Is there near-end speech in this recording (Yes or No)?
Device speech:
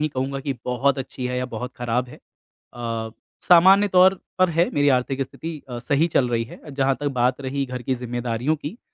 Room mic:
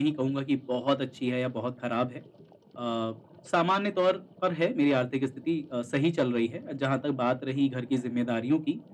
No